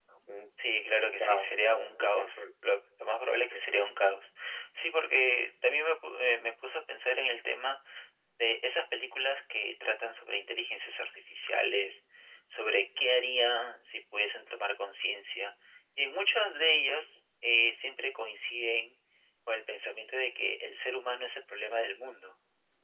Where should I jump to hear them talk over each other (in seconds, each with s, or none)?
1.2 s